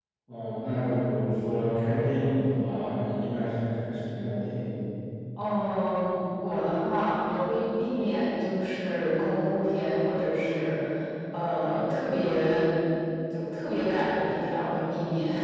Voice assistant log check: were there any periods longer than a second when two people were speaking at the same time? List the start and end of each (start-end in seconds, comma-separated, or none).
none